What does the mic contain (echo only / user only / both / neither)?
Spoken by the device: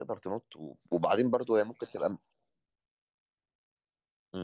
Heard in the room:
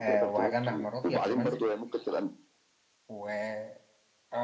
both